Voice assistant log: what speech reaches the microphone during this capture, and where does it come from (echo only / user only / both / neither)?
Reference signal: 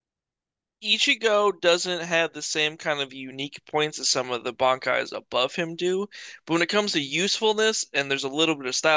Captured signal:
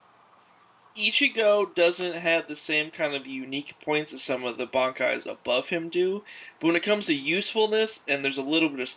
echo only